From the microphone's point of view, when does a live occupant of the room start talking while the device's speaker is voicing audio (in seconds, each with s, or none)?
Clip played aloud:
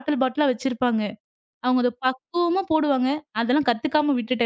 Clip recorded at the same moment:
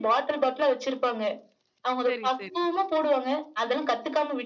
2.0 s